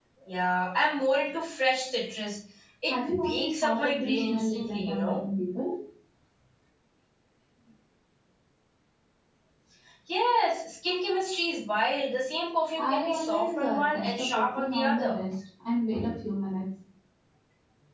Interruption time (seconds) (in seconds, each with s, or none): 2.9 s